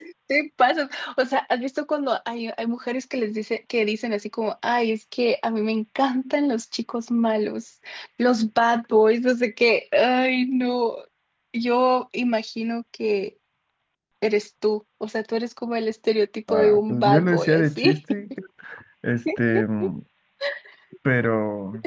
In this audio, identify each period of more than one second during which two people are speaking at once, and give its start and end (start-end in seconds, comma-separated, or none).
16.5-18.0